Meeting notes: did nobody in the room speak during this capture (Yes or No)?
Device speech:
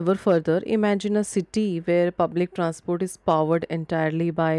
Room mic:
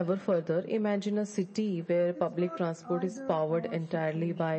No